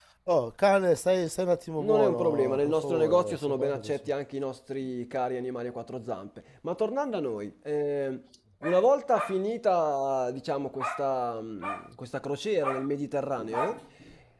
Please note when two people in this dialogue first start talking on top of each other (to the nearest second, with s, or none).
2 s